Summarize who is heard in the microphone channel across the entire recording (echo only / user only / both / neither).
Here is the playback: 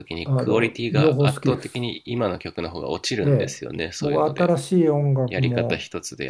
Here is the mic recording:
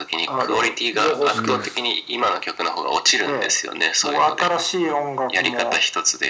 both